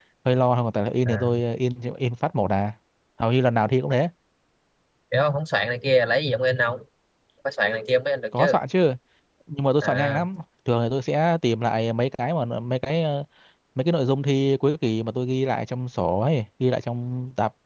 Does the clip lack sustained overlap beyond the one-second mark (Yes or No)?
Yes